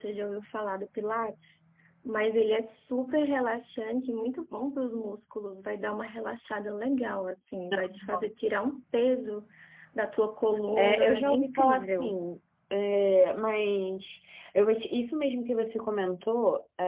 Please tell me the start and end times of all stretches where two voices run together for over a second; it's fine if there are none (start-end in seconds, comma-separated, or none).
10.8-12.1